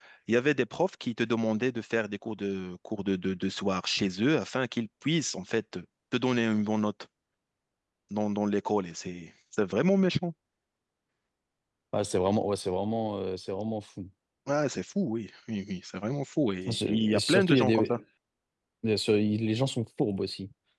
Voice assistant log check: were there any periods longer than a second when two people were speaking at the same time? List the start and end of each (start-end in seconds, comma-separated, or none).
16.7-18.0